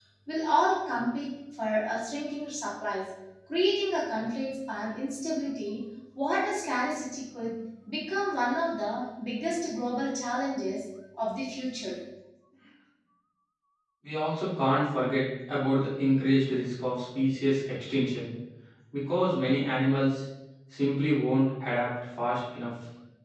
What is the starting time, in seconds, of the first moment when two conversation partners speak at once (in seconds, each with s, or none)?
none